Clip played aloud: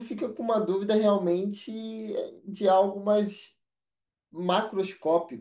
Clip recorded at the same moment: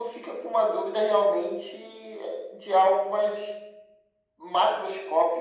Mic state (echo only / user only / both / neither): echo only